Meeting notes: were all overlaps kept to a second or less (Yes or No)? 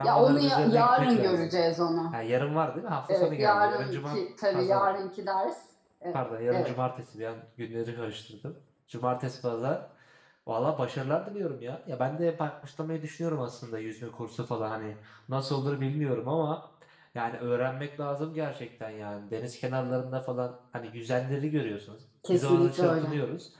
No